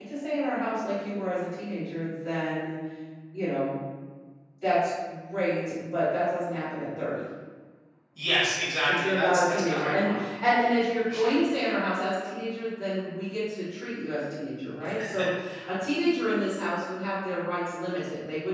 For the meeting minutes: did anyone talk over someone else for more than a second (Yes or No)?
Yes